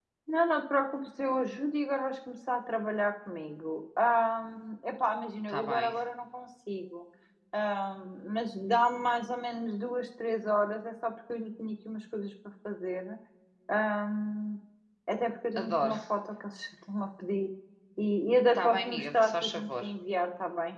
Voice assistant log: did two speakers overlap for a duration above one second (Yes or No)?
Yes